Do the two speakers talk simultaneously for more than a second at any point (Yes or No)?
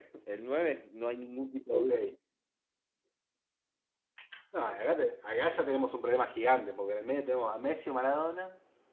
No